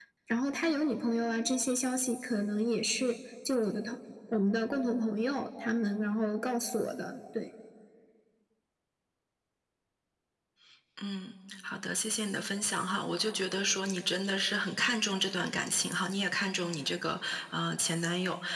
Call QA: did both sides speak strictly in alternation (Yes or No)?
Yes